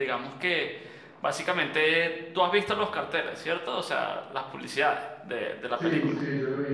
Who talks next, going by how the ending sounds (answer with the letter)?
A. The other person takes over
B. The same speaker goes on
A